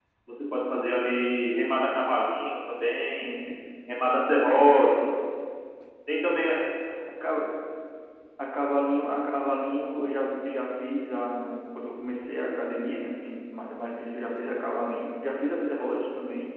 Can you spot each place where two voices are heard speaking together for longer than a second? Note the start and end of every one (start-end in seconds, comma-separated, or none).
none